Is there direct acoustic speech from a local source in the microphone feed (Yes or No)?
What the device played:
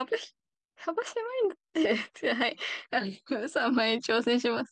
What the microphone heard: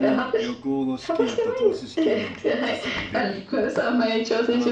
Yes